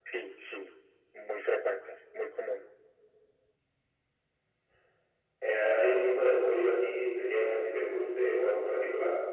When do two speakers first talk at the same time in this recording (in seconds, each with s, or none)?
none